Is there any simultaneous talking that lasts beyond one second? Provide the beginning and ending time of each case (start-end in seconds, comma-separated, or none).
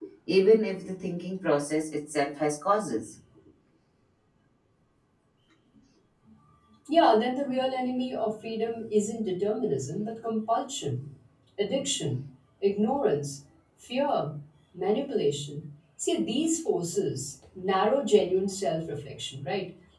none